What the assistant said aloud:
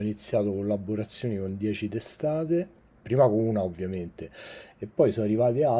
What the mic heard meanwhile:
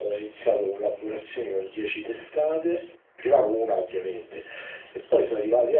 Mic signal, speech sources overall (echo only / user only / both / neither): echo only